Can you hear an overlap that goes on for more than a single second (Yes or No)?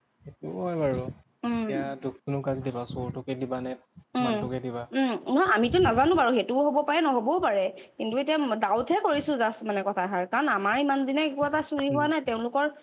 No